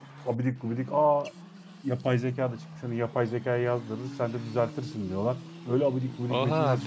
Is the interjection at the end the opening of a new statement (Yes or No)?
Yes